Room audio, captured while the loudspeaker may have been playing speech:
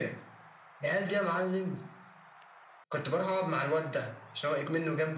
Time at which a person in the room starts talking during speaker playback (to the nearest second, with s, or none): none